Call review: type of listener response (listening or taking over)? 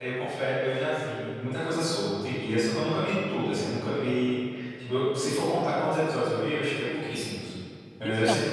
listening